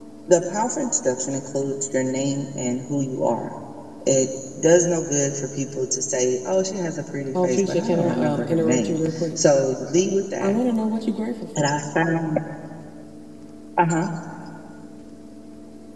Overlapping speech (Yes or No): Yes